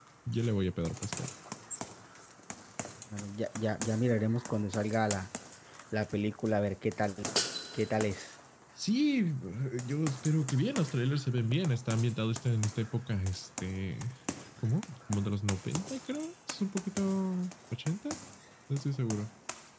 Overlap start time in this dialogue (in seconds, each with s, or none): none